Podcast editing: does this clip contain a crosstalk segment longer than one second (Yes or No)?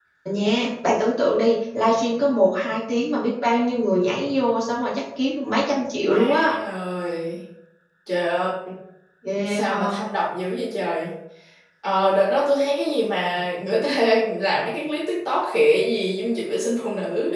No